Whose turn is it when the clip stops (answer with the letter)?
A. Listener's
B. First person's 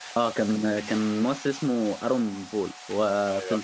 B